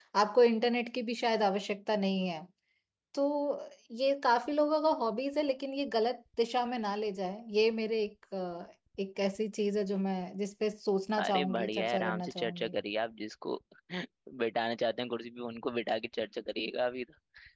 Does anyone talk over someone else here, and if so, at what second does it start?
11.2 s

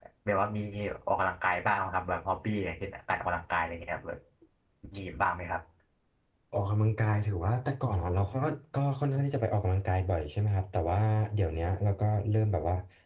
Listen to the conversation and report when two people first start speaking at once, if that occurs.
none

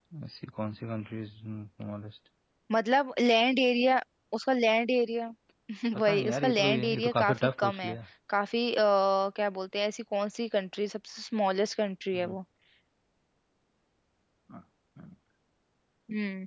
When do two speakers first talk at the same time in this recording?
6.0 s

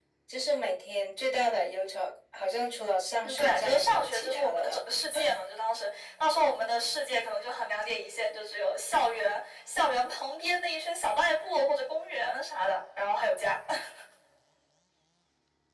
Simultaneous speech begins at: 3.2 s

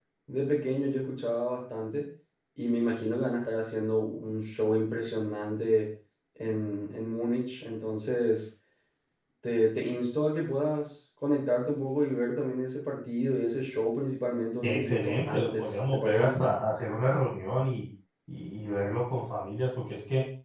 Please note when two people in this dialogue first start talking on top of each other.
14.6 s

